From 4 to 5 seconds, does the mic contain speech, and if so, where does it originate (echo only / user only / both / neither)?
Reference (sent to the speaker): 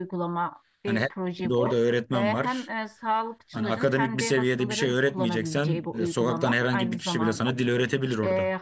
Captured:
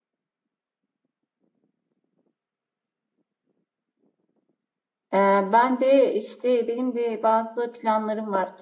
neither